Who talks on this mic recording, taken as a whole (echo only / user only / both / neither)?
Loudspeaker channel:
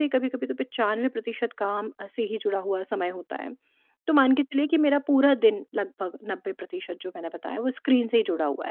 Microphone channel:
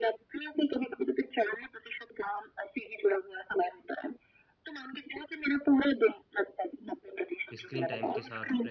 both